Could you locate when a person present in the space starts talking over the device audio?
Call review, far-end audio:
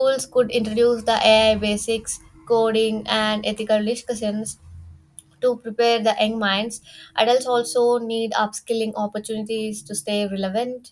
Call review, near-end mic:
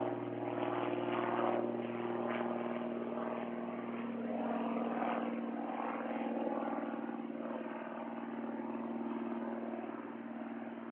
none

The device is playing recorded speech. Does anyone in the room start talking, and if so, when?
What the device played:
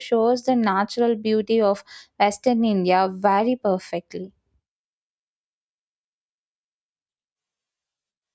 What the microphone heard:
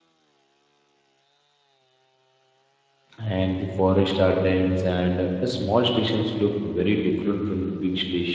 3.2 s

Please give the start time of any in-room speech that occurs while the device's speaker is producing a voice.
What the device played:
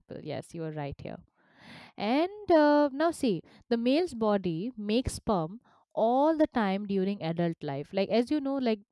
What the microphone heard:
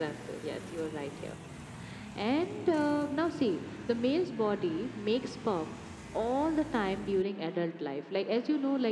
none

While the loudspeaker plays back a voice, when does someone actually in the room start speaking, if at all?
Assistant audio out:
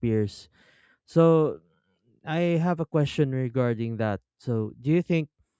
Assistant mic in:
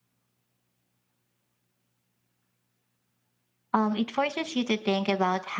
3.7 s

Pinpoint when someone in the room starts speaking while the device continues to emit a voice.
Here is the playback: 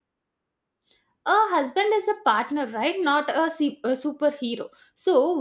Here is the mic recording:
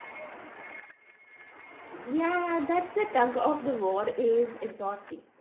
2.0 s

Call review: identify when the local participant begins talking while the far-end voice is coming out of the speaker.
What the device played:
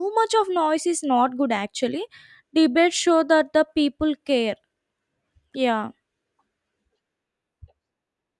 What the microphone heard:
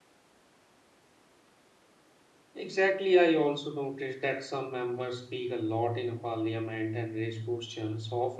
2.5 s

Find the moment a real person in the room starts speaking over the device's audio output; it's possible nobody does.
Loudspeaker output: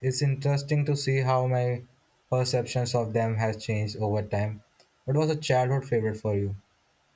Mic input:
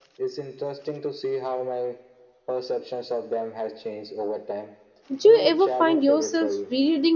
5.1 s

